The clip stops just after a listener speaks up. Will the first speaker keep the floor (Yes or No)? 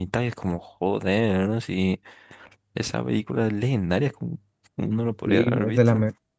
No